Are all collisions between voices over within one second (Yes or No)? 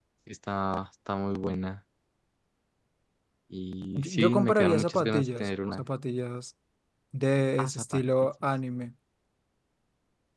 No